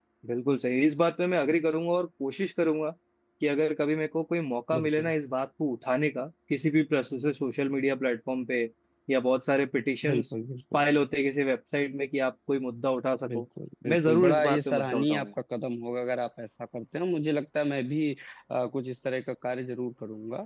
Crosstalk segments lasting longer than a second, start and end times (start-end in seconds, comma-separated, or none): 13.9-15.3